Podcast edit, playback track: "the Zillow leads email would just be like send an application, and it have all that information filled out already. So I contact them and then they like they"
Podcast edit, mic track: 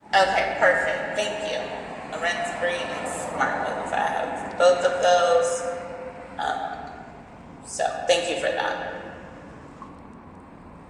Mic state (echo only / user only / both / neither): user only